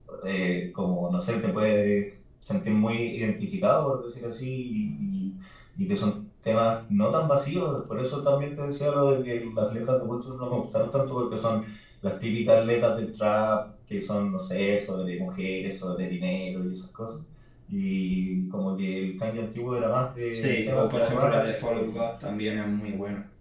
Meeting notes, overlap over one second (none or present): present